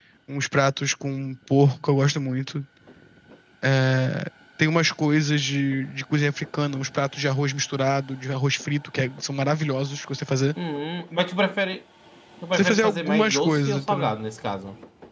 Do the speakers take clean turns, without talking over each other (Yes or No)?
No